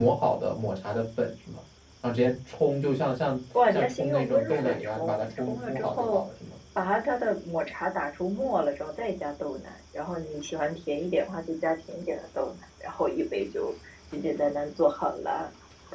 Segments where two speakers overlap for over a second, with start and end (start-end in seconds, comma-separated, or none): 3.7-6.2